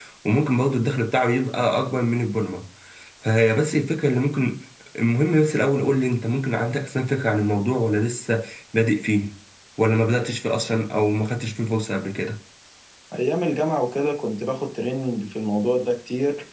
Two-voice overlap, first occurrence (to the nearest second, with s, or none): none